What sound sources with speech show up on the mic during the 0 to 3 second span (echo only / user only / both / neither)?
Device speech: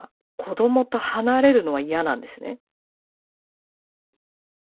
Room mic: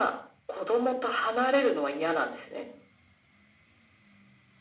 echo only